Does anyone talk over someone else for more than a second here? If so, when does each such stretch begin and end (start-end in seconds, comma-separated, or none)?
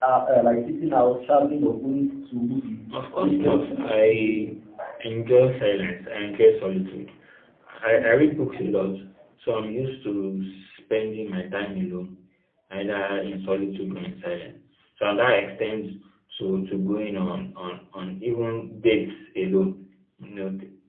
3.2-4.5